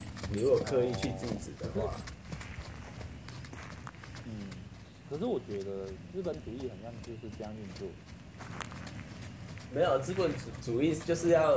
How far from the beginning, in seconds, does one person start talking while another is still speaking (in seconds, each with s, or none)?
0.6 s